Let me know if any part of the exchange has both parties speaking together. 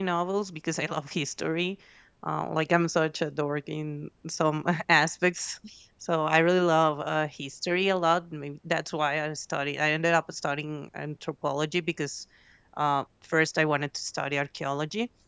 No

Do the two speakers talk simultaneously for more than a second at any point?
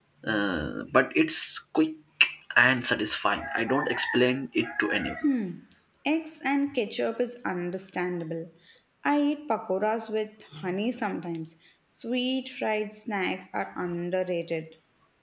No

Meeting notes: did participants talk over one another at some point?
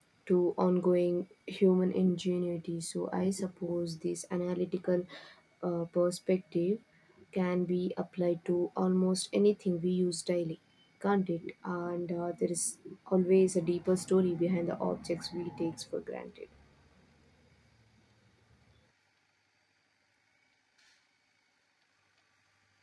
No

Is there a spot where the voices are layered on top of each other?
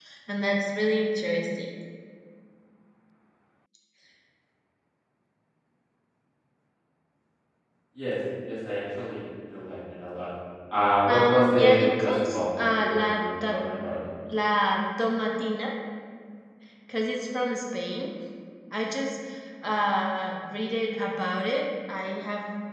Yes, from 11.0 s

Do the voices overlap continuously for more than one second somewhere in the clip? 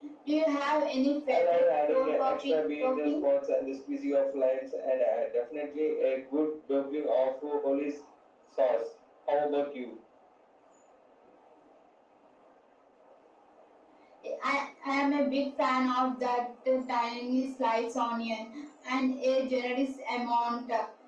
Yes, from 1.3 s

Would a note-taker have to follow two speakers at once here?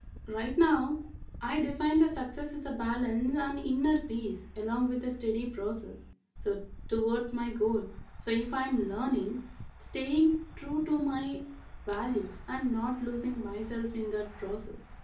No

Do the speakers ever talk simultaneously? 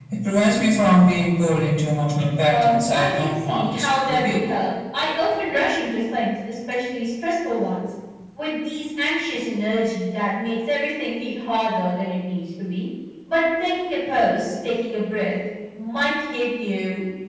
Yes, from 2.5 s

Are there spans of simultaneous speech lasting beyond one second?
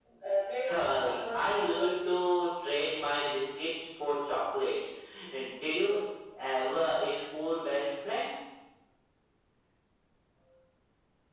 Yes, from 0.6 s

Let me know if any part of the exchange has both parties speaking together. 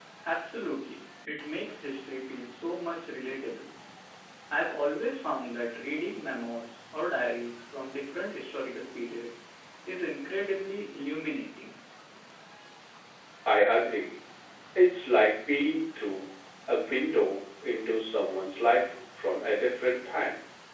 No

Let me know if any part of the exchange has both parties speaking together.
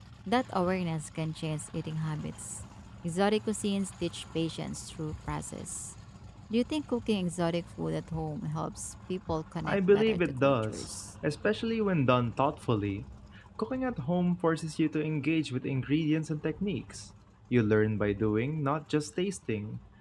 Yes, from 9.6 s

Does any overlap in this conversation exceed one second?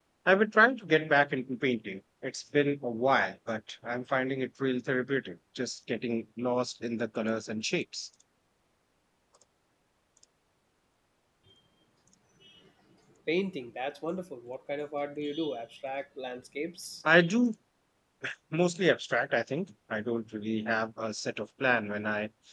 No

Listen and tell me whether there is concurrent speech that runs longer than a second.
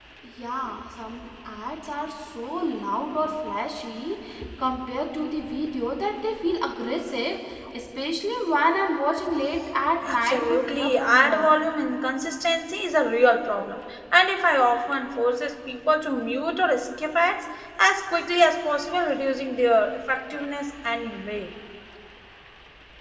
Yes, from 10.0 s

